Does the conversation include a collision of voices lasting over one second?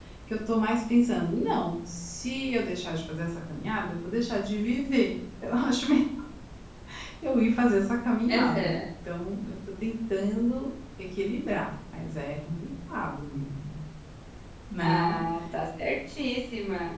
No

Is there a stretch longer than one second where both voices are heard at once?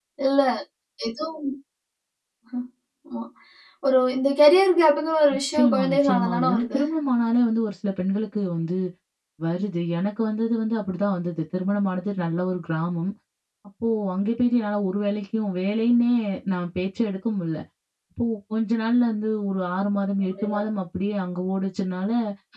Yes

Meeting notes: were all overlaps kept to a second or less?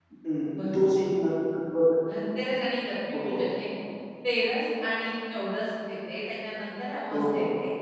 Yes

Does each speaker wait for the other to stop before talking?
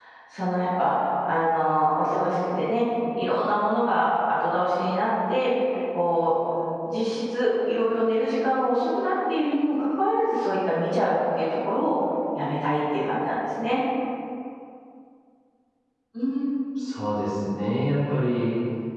Yes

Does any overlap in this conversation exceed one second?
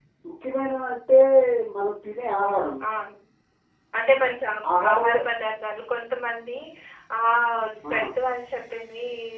No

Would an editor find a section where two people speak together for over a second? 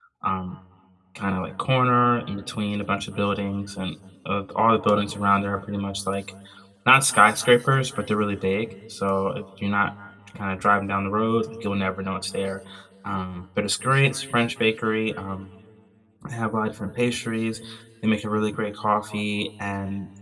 No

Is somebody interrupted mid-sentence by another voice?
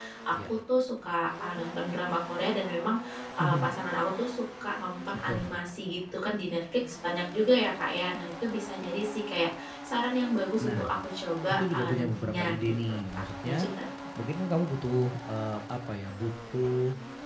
Yes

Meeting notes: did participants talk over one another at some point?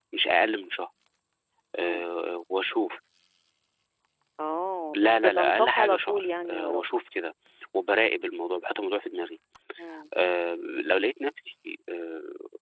Yes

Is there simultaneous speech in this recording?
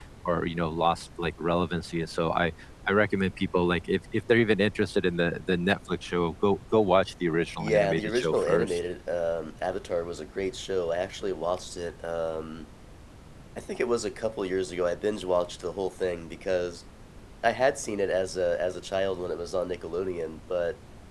Yes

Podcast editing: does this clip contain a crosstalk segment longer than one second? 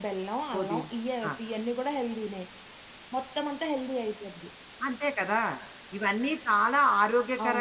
No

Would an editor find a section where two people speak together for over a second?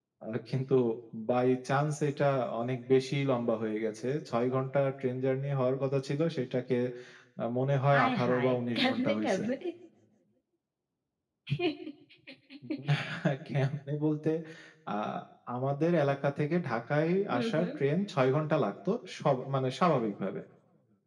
Yes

